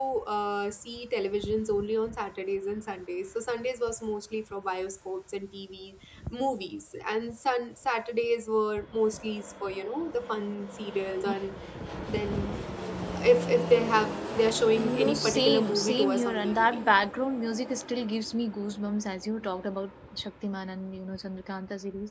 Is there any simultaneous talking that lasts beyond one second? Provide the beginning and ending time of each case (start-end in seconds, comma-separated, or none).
14.8-16.8